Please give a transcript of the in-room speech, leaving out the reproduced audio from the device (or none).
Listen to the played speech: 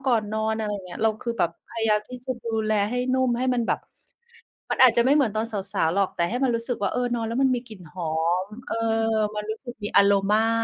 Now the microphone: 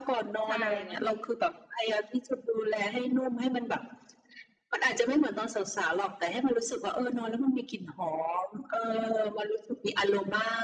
ใช่ บางที